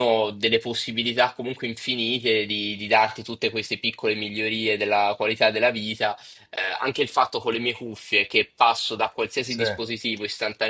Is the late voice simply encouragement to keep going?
Yes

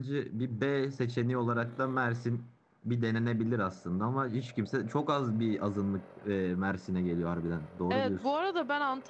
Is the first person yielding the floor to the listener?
Yes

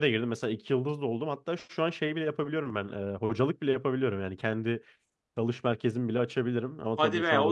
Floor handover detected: Yes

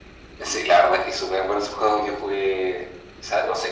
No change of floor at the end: Yes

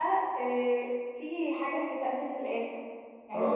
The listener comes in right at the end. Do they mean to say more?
Yes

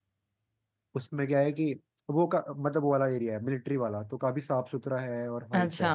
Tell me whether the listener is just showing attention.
No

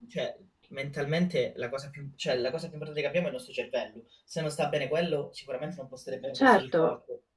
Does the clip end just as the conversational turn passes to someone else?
Yes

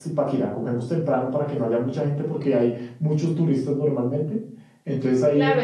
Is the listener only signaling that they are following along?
No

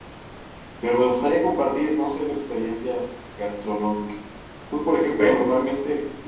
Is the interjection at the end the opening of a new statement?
No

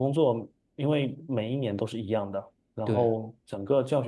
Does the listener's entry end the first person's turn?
No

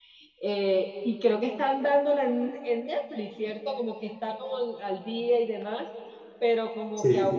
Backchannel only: Yes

